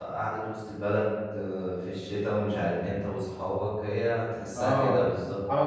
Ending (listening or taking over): taking over